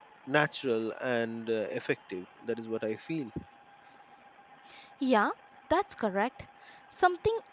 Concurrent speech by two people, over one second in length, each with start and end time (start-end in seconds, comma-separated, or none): none